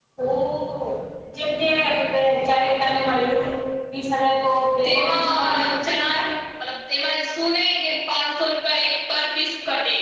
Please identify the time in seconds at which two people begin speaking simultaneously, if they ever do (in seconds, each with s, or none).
4.8 s